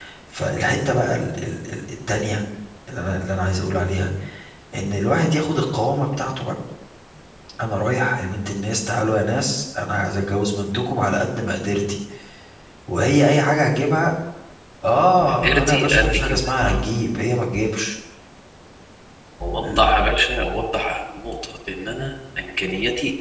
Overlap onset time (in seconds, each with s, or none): 15.2 s